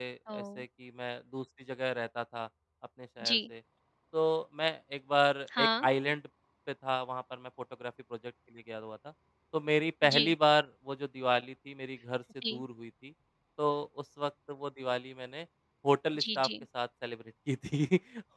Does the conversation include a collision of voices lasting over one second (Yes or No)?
No